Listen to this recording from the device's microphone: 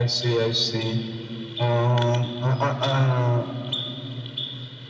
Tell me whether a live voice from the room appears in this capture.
No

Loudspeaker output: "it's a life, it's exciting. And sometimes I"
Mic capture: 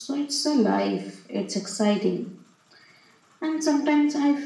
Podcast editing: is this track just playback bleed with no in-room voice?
Yes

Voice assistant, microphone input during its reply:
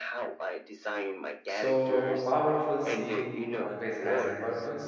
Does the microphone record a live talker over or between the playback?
Yes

